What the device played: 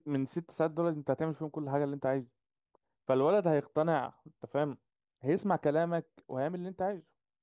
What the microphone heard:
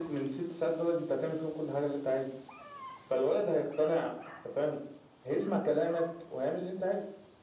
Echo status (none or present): present